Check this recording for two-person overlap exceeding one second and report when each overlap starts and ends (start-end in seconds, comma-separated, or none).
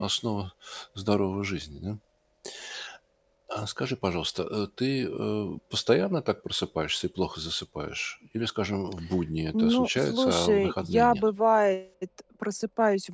9.5-11.3